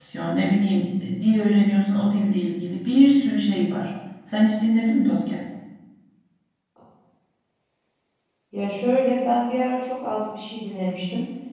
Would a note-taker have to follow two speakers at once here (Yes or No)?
No